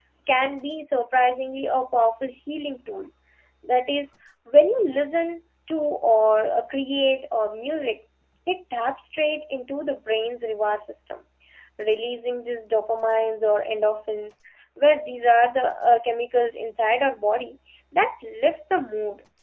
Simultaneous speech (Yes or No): No